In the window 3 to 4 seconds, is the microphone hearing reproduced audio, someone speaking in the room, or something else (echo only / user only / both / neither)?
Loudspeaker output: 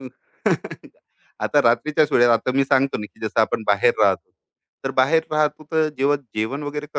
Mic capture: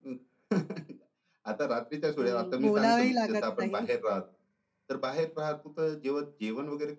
both